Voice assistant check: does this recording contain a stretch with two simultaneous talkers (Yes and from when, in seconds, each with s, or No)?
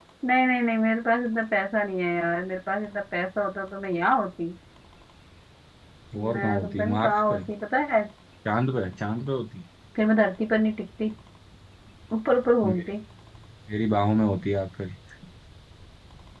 Yes, from 6.2 s